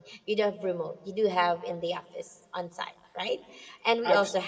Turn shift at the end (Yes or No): No